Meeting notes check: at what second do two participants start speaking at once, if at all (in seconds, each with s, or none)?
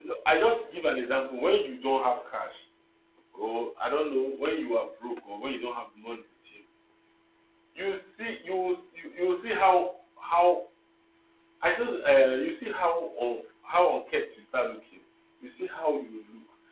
none